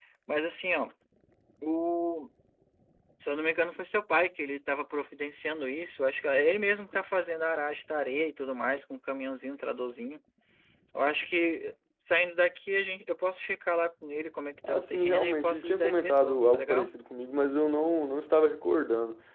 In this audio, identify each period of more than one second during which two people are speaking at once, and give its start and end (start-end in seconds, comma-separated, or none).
14.7-16.9